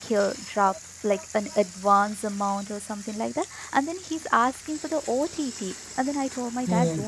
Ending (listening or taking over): listening